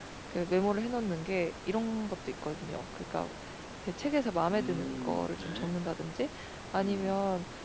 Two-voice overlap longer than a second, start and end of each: 4.5-5.7

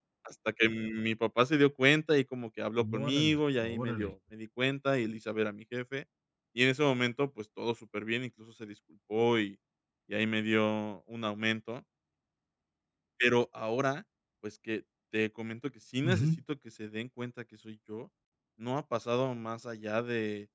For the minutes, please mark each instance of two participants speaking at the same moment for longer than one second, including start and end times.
2.9-4.1

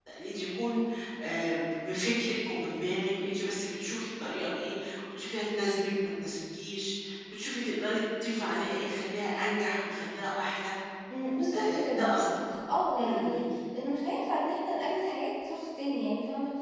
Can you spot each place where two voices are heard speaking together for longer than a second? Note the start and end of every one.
none

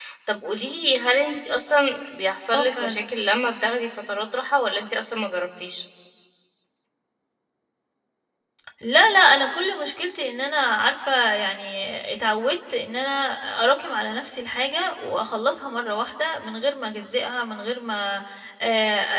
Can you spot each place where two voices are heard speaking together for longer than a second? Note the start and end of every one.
none

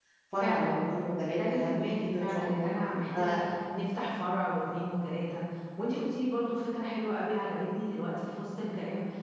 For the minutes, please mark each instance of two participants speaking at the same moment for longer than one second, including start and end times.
1.3-2.7

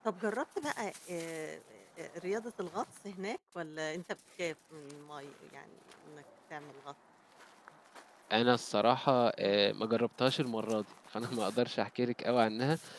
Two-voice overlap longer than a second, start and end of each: none

